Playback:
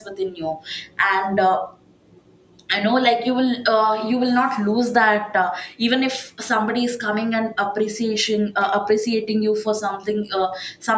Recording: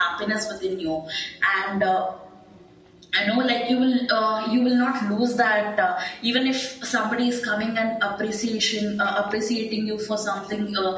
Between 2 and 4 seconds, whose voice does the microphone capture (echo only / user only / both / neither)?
echo only